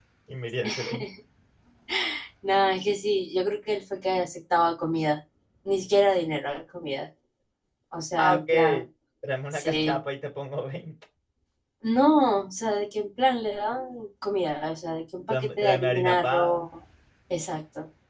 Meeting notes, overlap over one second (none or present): present